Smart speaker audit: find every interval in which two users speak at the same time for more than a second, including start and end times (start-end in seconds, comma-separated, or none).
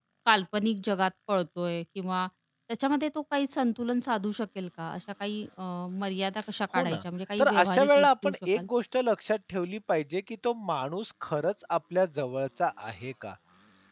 7.4-8.6